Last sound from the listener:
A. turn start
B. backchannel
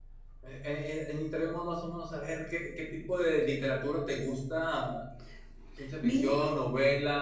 B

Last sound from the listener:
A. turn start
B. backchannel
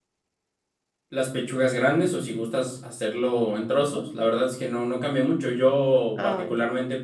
B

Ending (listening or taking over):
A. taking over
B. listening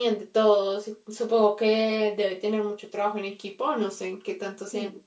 A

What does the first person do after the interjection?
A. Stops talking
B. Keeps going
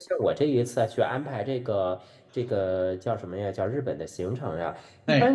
B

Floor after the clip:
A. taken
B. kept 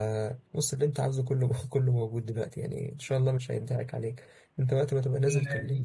A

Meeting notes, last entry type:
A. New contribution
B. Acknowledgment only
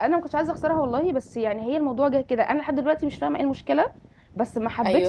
B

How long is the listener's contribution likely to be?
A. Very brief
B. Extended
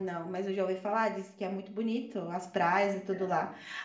A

